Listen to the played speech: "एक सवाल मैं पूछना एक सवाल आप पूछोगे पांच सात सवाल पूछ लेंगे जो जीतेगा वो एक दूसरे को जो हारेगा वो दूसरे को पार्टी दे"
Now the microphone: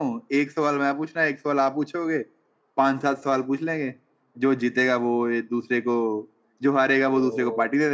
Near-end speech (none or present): present